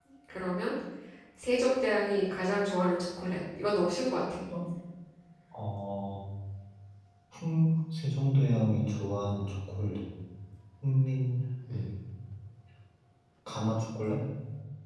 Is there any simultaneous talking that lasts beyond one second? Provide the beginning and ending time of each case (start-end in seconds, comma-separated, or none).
none